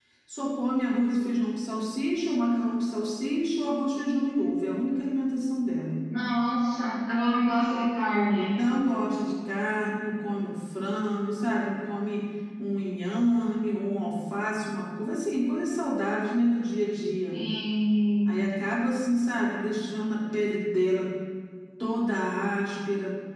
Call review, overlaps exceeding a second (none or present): none